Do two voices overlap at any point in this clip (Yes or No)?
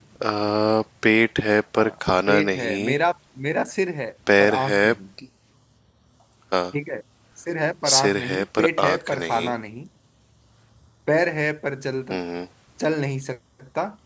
Yes